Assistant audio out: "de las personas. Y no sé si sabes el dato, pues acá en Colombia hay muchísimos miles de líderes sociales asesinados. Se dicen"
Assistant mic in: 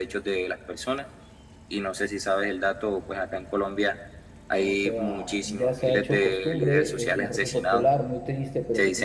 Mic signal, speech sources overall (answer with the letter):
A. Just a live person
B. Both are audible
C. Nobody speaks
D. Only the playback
B